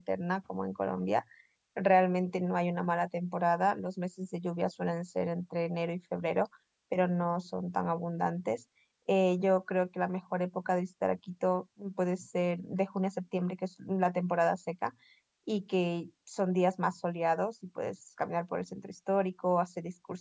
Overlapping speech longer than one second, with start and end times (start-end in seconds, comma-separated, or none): none